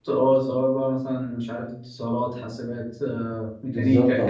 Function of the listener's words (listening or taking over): taking over